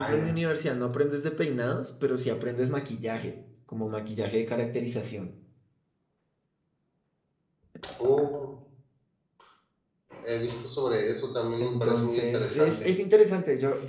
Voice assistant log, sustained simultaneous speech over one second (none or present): present